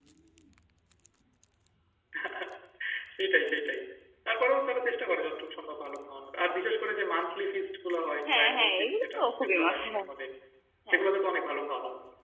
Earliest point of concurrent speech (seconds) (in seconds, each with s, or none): 8.3 s